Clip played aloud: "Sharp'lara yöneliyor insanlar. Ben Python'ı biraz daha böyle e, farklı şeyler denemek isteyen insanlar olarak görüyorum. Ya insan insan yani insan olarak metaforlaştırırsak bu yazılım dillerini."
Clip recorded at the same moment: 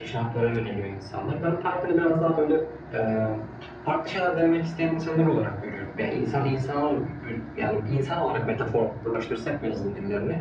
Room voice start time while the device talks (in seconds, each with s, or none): none